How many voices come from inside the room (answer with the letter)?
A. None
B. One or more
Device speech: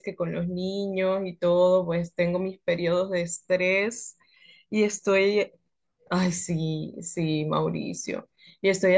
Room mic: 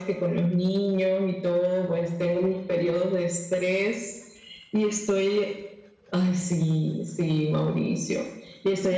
A